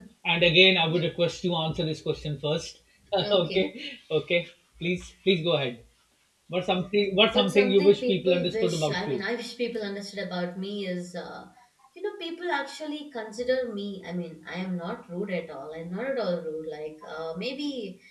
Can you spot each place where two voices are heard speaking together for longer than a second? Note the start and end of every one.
7.3-9.2

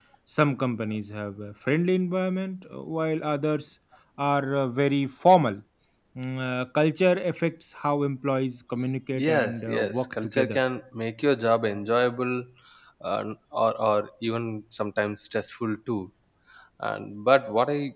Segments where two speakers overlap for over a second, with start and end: 9.2-10.6

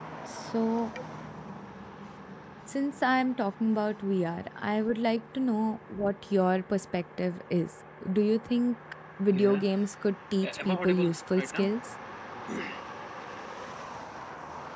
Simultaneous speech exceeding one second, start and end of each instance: 10.4-11.7

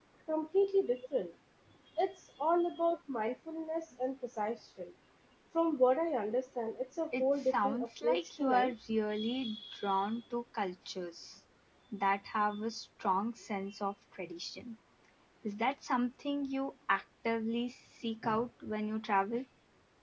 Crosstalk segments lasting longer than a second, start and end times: 7.2-8.7

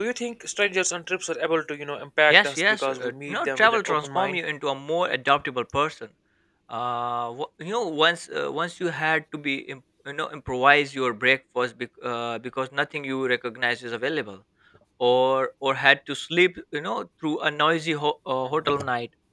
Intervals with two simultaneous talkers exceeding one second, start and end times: 2.3-4.4

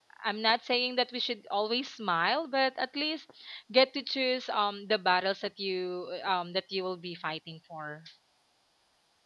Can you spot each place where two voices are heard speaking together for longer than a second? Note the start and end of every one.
none

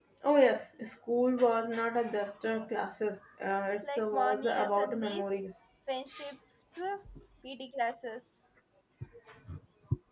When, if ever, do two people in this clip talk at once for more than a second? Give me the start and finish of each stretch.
3.8-5.4

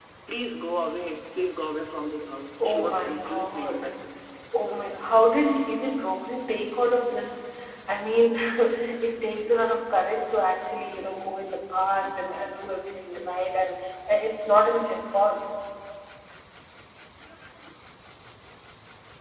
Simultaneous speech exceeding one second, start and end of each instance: 2.6-3.9

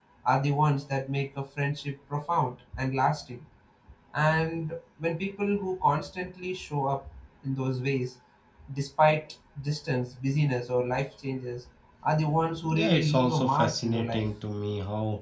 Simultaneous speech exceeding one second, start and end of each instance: 12.7-14.3

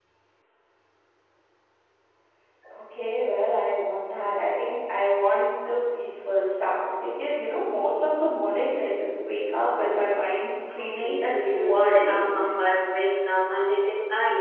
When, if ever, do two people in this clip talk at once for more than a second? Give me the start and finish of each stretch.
10.8-12.5

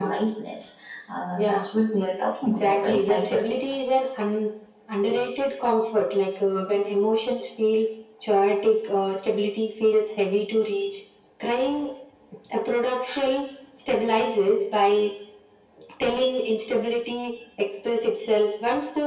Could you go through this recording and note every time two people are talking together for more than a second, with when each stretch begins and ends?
2.4-3.8

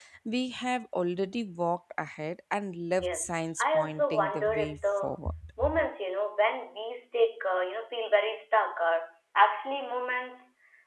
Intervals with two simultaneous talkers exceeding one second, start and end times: 3.0-5.2

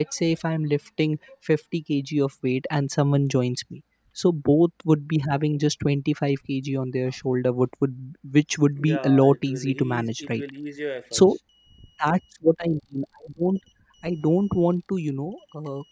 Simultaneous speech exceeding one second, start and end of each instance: 8.8-10.4

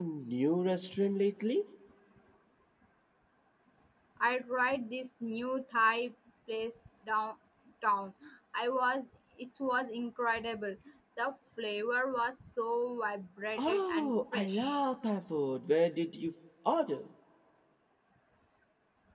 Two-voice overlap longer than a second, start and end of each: 13.6-14.8

